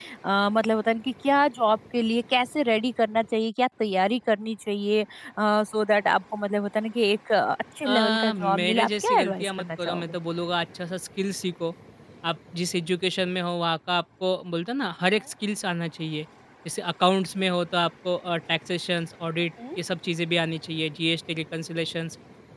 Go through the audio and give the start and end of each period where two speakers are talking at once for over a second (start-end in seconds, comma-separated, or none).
7.8-10.2